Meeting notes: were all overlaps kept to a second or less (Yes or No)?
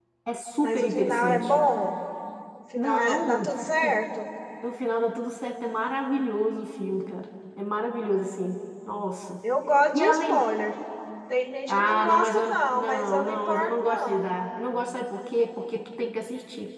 No